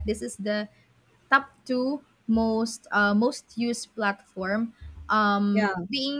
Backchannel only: Yes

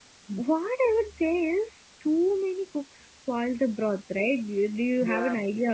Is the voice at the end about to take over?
No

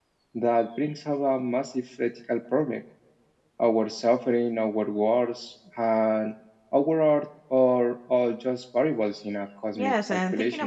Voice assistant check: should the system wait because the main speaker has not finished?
No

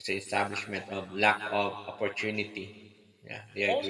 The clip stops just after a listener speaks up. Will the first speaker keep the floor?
No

